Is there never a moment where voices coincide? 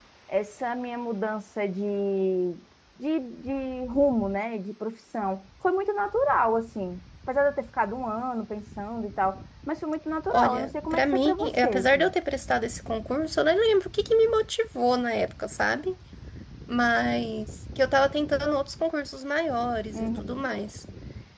No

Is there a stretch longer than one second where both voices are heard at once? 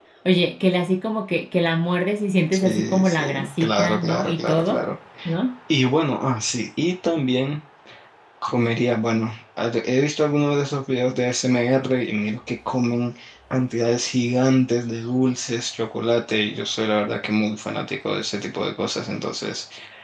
Yes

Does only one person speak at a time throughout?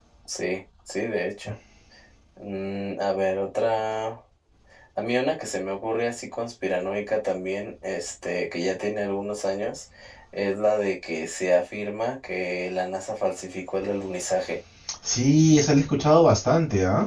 Yes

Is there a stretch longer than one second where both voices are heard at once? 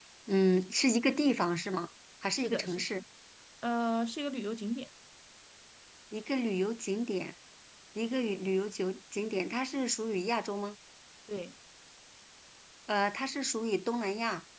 No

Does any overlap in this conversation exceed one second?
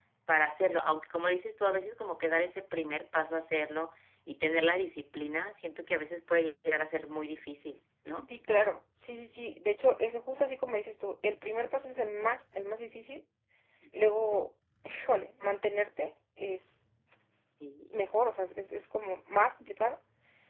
No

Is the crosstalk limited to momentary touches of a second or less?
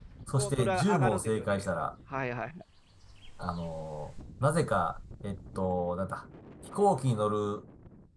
No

